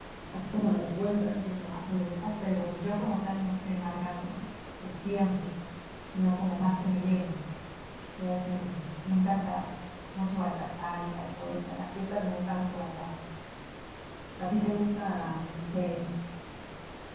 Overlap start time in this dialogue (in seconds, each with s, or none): none